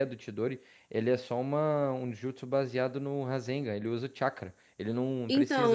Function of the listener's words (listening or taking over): taking over